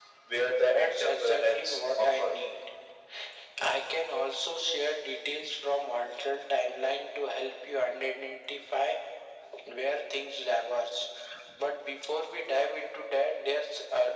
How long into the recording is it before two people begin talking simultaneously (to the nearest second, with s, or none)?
1 s